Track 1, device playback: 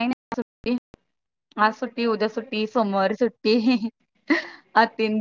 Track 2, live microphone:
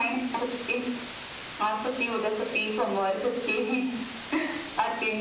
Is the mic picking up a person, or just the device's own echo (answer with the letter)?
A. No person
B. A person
A